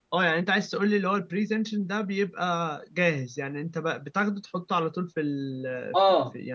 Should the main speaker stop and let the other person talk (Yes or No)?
Yes